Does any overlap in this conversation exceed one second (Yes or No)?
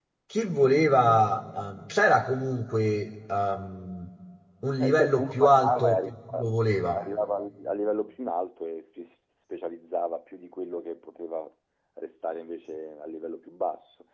Yes